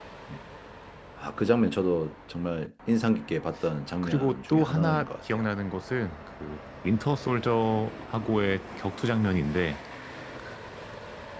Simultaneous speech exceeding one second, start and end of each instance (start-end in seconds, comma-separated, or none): 4.0-5.4